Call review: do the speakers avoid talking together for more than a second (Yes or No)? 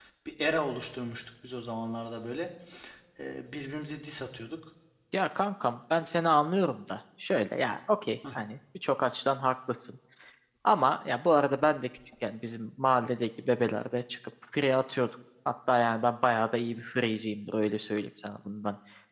Yes